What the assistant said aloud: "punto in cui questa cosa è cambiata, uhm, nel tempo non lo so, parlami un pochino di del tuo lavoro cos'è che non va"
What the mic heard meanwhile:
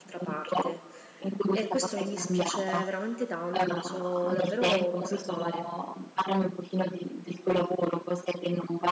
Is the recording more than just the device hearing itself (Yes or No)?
Yes